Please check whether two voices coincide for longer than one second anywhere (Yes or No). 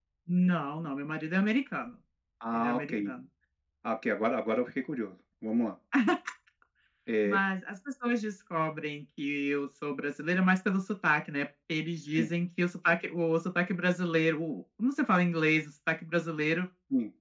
No